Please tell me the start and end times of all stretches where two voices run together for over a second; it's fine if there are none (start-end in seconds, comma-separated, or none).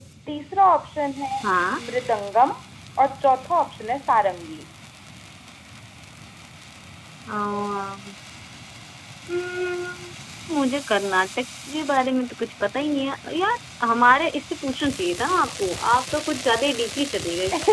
none